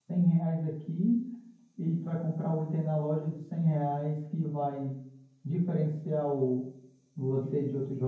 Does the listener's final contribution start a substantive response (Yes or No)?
Yes